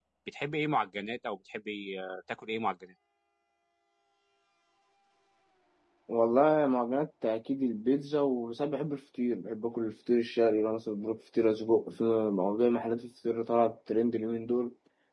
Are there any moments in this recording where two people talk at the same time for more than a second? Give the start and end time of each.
none

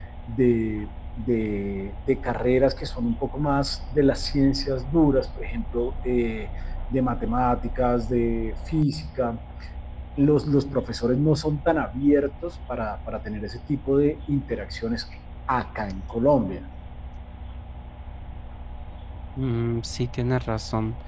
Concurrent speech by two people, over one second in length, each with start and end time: none

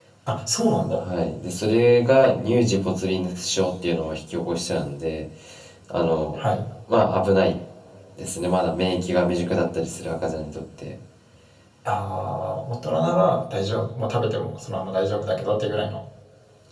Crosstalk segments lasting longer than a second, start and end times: none

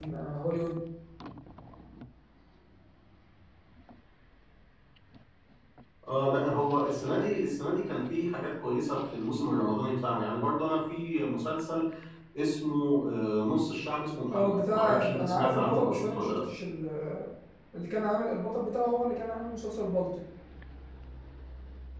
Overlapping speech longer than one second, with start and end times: 14.3-16.4

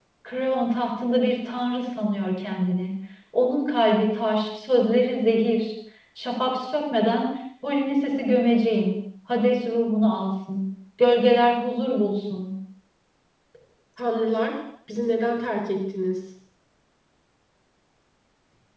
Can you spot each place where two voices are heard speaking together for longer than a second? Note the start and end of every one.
none

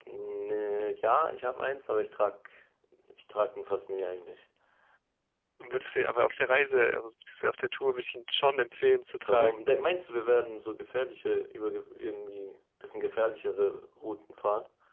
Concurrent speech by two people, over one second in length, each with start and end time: none

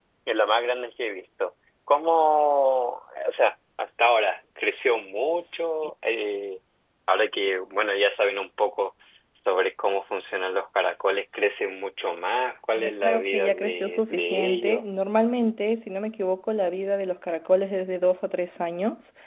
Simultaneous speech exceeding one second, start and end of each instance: 12.8-14.8

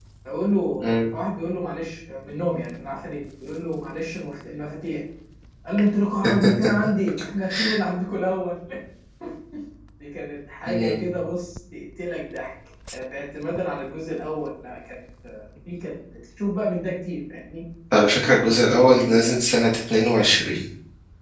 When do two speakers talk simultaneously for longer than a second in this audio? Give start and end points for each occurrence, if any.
18.1-19.4

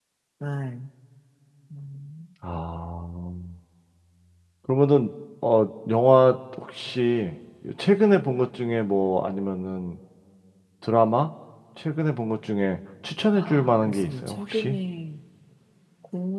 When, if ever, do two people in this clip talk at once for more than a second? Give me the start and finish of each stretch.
13.3-14.8

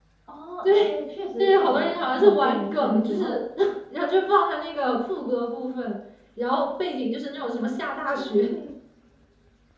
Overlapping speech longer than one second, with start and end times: 1.4-3.4

